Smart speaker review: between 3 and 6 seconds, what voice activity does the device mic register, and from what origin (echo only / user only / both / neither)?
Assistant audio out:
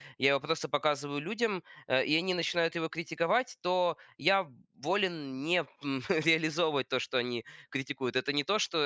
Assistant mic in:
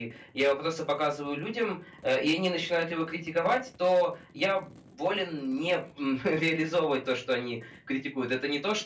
echo only